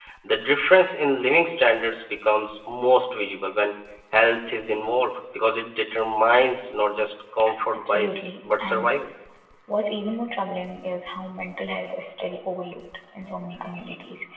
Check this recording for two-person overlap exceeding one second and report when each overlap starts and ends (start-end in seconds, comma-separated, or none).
7.7-9.0